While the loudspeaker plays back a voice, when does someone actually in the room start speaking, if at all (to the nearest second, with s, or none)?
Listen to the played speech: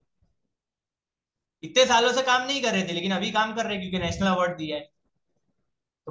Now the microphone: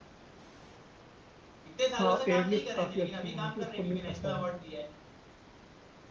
2 s